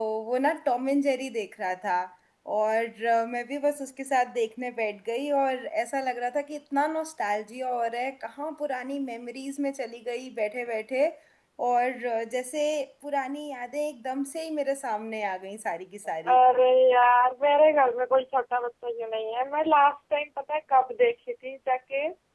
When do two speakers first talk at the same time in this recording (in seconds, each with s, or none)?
none